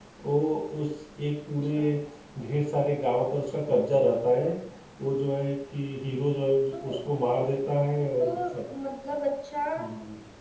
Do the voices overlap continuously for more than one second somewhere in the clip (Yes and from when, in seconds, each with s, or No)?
No